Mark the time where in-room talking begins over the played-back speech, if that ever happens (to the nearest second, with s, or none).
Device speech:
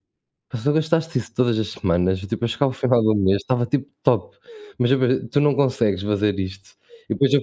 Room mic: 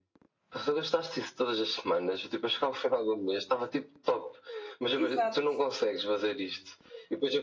5 s